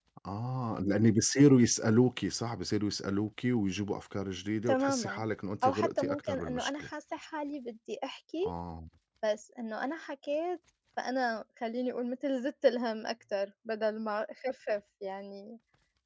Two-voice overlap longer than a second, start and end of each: 5.6-6.9

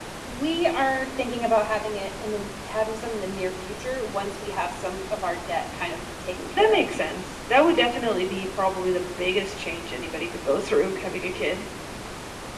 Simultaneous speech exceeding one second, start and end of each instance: none

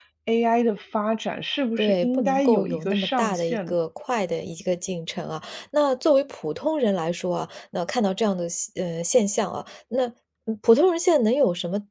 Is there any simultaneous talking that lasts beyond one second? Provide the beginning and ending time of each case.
1.8-3.7

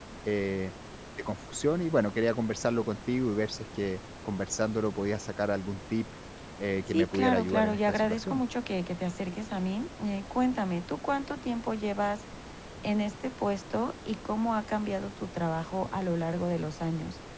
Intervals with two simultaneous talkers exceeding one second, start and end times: 6.9-8.4

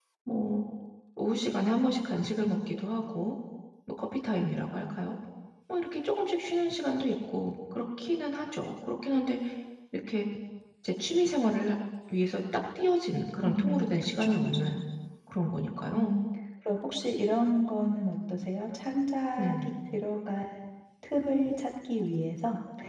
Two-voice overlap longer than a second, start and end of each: 13.4-14.8

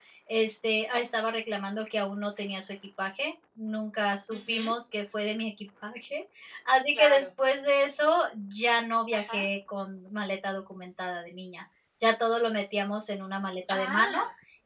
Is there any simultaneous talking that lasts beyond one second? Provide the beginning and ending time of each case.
none

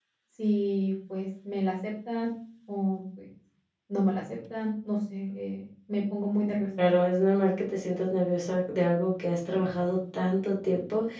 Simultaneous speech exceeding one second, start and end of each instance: none

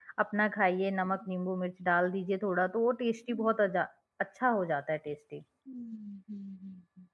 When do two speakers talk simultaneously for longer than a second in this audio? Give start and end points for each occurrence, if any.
none

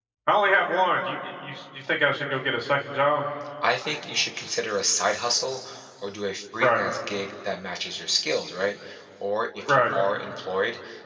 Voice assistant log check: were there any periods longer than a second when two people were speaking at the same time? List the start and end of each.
none

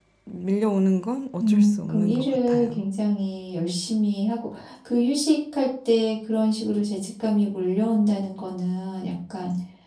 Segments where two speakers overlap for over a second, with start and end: 1.4-2.8

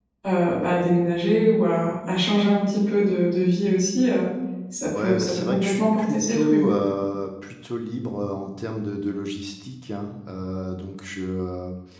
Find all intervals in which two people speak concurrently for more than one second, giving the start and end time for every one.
4.9-6.7

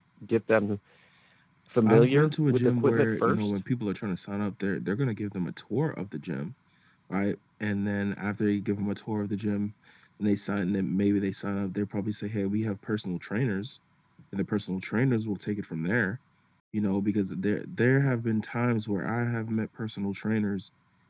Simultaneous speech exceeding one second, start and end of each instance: 1.8-3.5

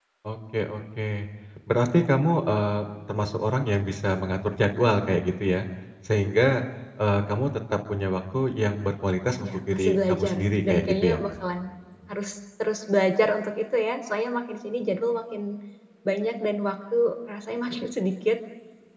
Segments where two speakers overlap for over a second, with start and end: 9.4-11.2

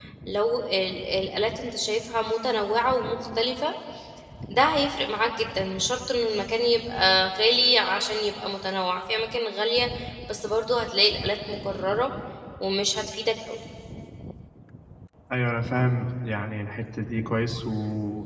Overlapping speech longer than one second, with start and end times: none

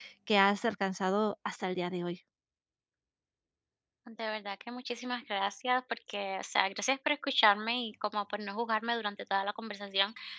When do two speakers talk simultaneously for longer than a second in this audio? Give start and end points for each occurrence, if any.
none

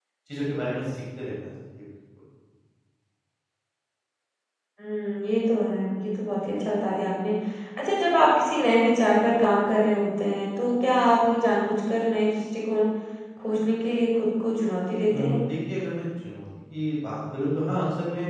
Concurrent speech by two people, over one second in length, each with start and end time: none

